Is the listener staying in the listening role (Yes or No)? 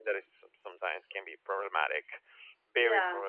No